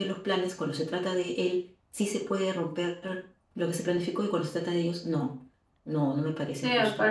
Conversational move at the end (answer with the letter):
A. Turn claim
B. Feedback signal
A